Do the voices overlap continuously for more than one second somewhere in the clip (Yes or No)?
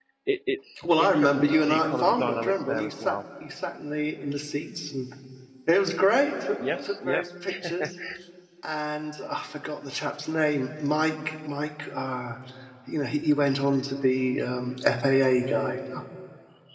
Yes